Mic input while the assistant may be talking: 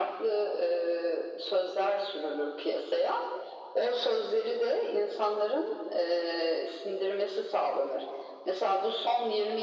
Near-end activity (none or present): none